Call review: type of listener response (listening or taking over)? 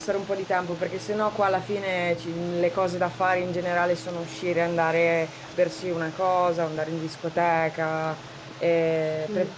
listening